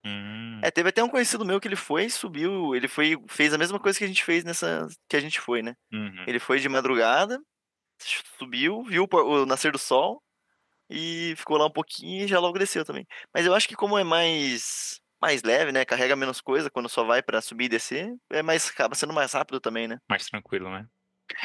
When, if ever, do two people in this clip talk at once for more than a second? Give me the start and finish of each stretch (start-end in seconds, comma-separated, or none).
none